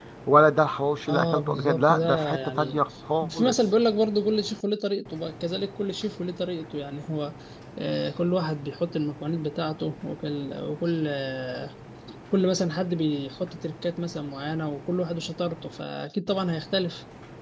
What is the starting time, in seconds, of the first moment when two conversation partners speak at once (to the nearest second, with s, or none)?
1 s